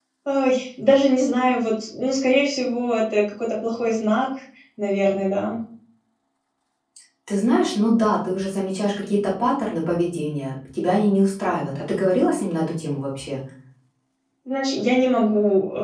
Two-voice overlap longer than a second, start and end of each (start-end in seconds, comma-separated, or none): none